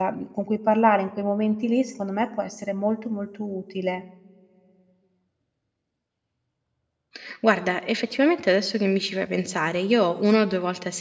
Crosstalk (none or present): none